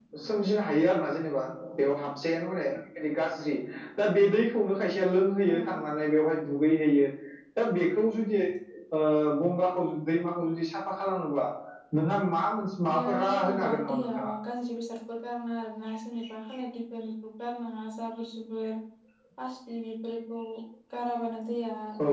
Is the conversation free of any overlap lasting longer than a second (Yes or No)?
No